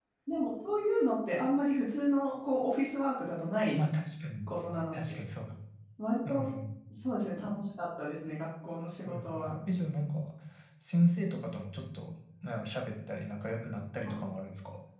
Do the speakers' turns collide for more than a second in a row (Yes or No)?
No